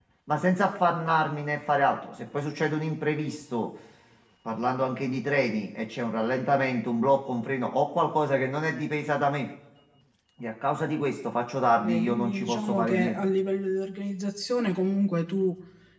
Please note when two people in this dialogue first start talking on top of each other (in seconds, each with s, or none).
11.6 s